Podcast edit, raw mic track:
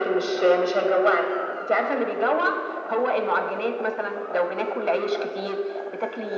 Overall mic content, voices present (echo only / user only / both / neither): echo only